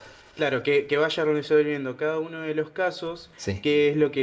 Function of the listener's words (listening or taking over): listening